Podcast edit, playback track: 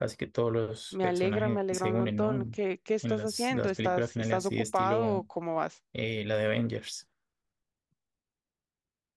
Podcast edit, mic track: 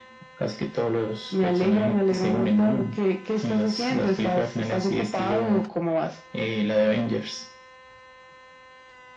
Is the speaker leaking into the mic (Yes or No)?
Yes